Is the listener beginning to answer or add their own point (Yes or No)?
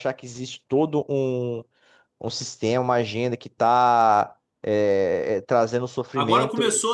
Yes